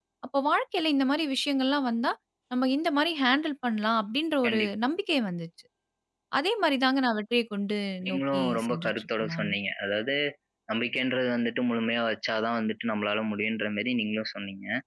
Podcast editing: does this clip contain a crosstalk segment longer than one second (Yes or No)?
Yes